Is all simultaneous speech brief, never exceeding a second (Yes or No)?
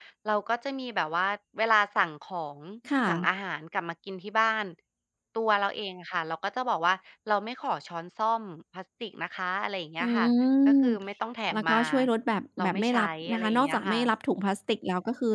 No